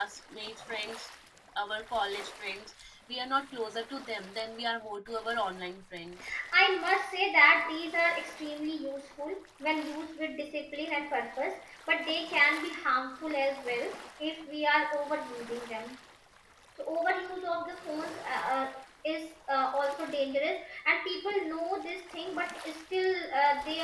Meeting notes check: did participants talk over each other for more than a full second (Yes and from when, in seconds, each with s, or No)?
No